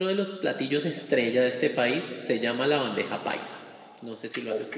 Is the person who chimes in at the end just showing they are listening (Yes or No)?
No